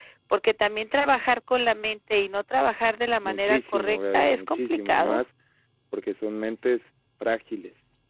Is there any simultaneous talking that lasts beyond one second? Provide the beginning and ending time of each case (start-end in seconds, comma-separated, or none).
3.2-5.2